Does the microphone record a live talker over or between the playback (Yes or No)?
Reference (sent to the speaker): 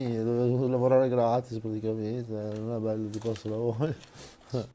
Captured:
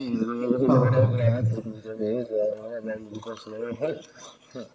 Yes